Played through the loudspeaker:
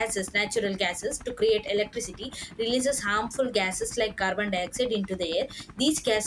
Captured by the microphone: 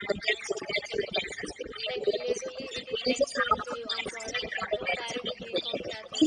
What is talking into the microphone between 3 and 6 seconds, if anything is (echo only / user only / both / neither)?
both